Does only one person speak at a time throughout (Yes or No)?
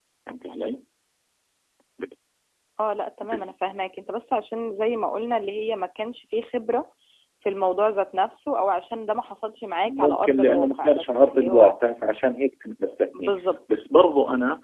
No